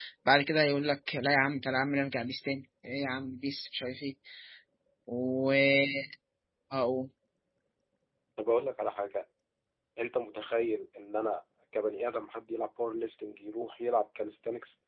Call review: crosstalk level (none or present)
none